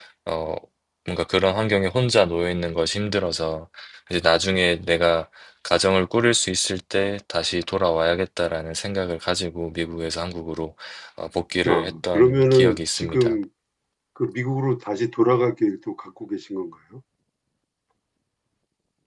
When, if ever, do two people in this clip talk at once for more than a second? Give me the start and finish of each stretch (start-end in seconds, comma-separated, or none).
11.7-13.4